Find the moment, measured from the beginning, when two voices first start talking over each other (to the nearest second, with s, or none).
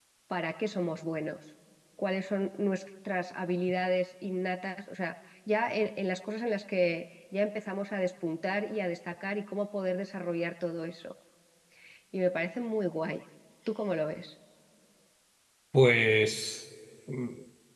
none